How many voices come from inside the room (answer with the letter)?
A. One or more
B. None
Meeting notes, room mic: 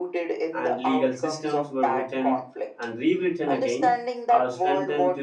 A